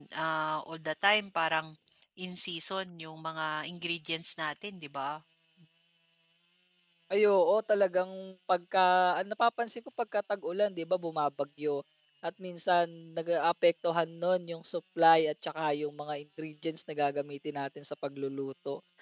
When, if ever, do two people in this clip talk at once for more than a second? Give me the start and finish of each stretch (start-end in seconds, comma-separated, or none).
none